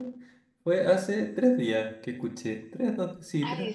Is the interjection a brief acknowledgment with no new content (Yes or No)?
No